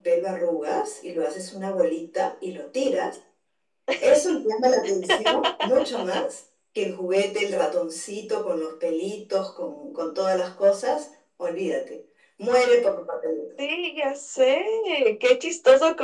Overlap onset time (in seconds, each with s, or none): none